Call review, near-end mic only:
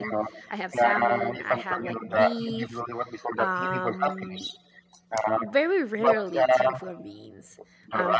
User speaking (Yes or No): Yes